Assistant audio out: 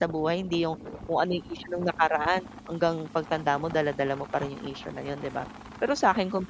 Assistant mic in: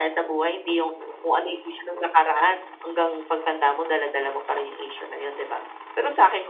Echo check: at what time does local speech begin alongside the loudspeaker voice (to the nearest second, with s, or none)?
none